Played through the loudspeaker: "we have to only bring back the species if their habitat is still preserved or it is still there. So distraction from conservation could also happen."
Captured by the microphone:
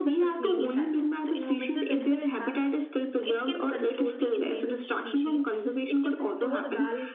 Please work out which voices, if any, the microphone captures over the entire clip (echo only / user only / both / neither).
both